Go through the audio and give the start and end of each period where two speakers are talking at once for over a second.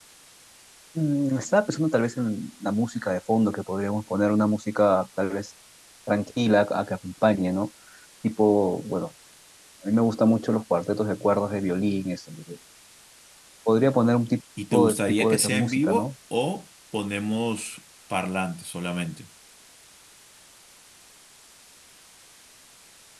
14.7-16.1

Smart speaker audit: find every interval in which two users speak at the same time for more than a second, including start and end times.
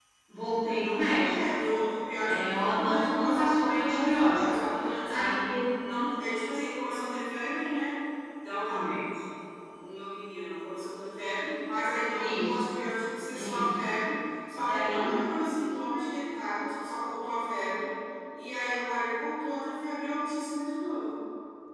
2.2-4.4

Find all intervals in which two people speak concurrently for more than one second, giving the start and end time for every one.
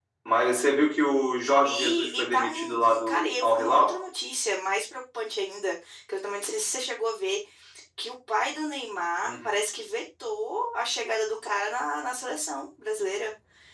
1.6-4.0

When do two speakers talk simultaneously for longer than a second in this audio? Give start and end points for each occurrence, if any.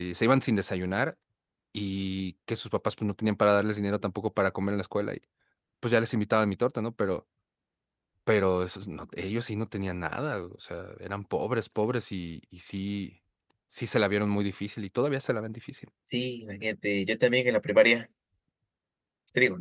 none

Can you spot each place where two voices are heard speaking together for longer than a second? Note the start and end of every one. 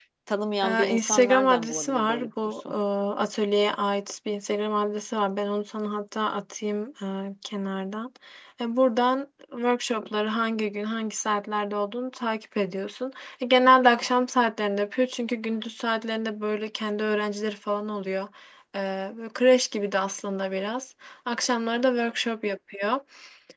0.6-2.7

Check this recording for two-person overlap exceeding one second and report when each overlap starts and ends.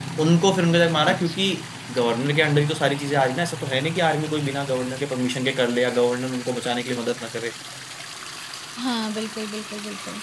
none

